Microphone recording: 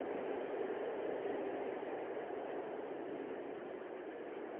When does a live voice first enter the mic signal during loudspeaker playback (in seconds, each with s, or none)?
none